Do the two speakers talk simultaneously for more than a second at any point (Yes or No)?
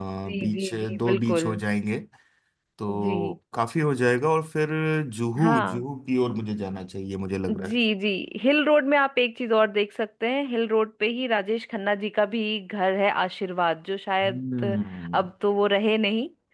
Yes